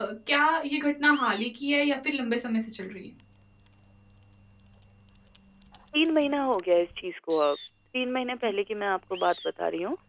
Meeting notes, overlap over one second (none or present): none